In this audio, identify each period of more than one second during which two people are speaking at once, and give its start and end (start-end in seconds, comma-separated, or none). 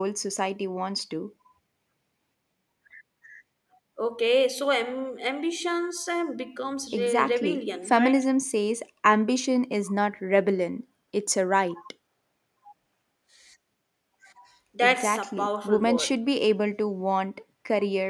6.9-8.2, 14.8-16.1